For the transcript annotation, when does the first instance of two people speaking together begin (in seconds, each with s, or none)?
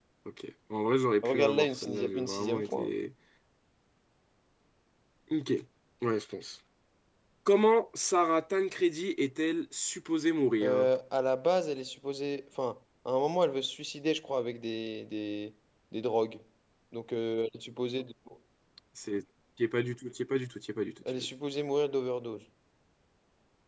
1.2 s